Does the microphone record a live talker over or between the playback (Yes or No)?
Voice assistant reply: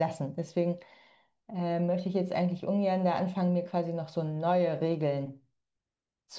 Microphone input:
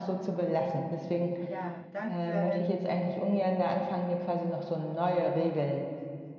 Yes